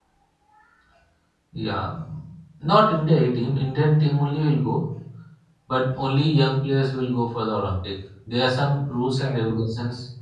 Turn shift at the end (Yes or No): No